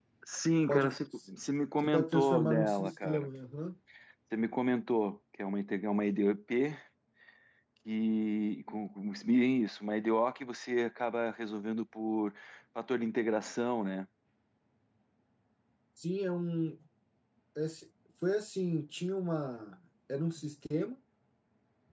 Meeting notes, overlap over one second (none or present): present